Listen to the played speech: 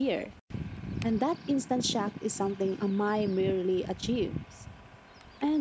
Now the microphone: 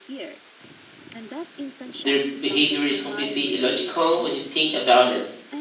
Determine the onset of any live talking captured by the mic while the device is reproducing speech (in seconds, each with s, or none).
2.0 s